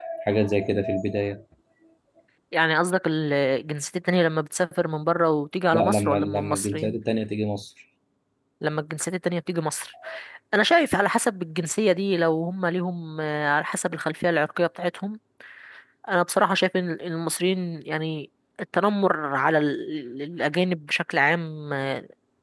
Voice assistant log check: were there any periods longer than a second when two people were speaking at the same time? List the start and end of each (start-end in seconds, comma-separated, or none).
5.7-7.0